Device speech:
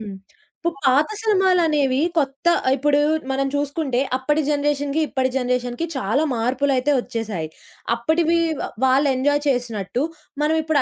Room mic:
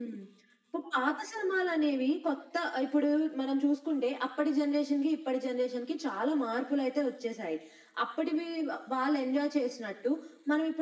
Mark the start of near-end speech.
none

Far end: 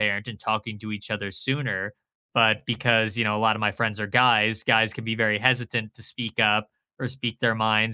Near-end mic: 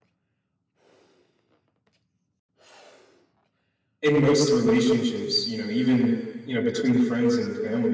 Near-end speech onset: 4 s

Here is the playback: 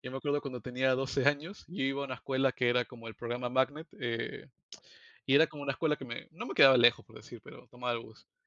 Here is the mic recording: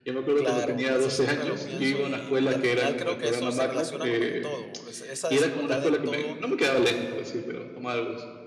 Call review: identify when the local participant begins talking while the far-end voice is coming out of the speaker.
0 s

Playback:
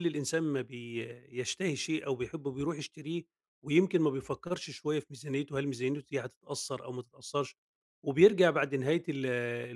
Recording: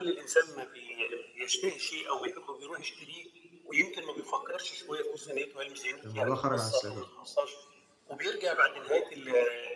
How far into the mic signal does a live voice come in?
6 s

